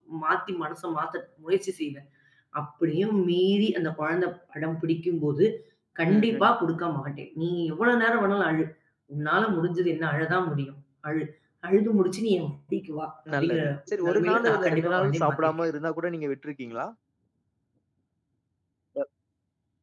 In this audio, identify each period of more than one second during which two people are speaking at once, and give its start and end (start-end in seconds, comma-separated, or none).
14.1-15.5